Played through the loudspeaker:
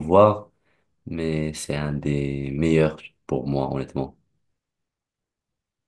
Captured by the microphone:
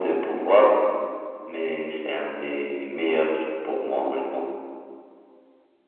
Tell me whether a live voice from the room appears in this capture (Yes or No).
No